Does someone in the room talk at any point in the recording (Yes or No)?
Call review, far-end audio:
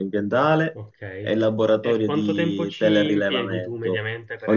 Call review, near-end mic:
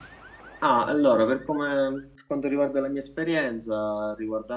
Yes